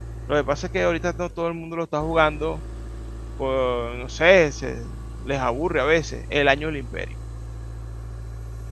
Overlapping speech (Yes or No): No